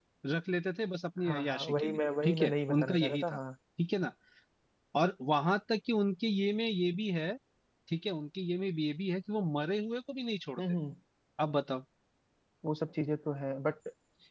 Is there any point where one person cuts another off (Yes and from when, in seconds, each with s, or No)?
Yes, from 1.3 s